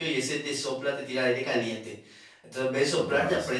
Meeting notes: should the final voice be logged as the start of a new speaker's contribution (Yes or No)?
No